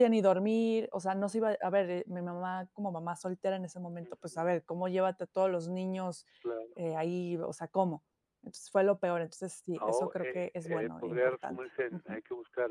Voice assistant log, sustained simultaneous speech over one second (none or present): present